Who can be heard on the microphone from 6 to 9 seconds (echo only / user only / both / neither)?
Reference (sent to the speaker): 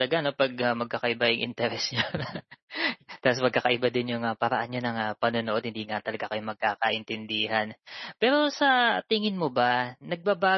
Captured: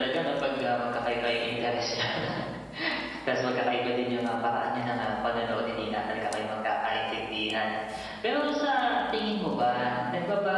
echo only